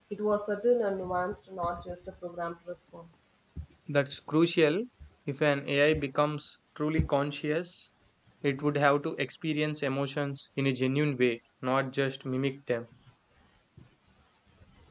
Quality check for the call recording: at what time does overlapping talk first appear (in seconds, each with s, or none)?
none